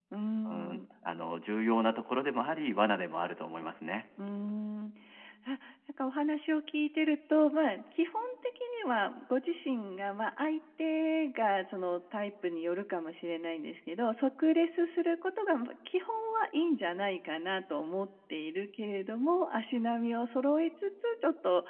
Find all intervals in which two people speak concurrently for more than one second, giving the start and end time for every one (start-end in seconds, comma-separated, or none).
none